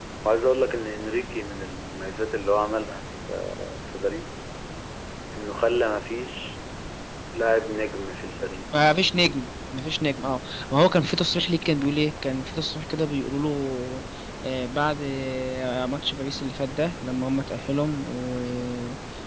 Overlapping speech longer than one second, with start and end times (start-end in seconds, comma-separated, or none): none